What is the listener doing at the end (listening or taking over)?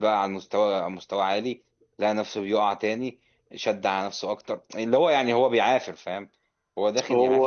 listening